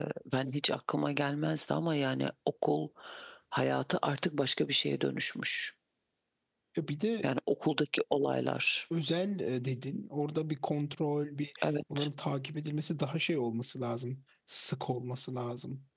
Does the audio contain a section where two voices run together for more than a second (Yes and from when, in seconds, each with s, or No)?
No